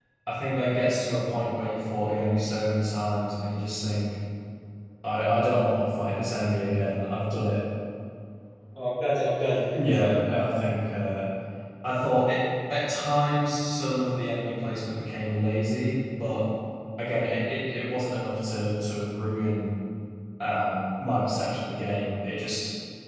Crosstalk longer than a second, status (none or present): none